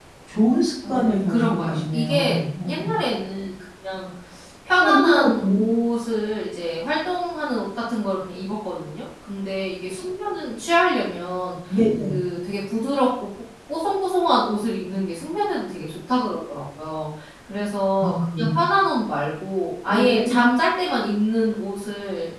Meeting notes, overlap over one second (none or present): present